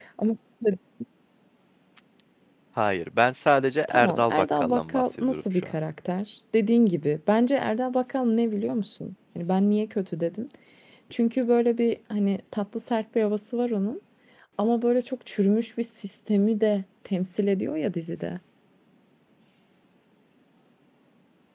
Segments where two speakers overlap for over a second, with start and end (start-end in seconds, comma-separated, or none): 3.9-5.7